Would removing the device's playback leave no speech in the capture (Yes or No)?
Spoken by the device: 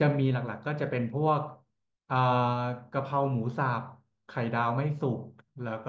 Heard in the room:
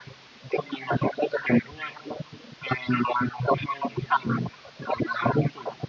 Yes